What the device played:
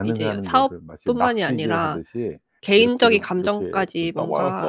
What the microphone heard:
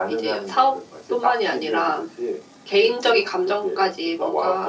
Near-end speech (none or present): none